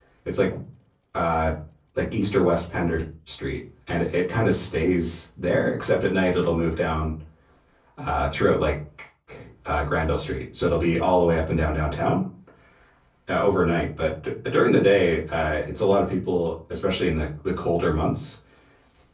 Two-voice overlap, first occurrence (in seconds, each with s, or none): none